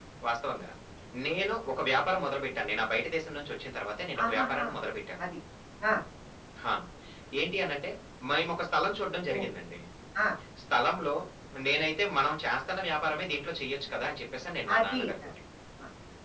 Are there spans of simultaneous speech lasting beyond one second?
No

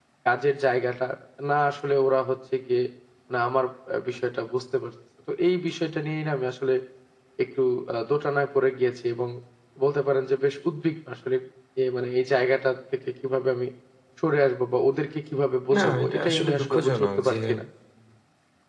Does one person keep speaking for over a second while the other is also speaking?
Yes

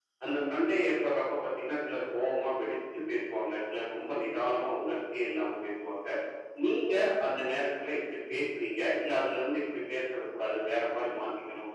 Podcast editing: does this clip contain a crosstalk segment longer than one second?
No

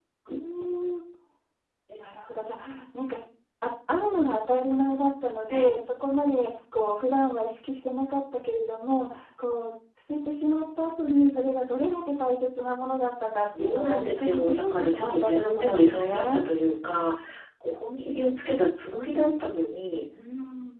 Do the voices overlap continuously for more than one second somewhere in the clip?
Yes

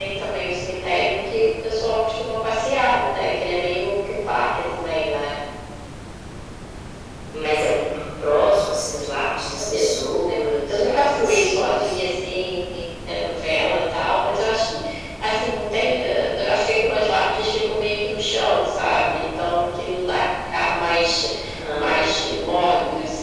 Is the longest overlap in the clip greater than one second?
Yes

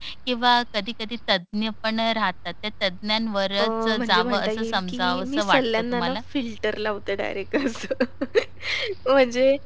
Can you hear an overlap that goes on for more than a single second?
Yes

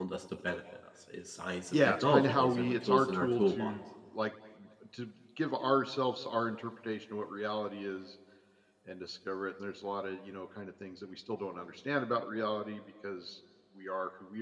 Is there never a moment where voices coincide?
No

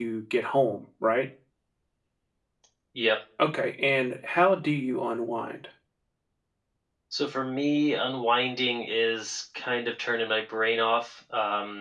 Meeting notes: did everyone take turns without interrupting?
Yes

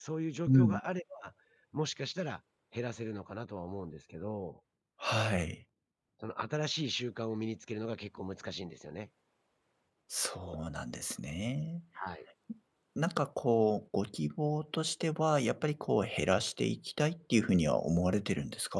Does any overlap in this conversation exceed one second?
No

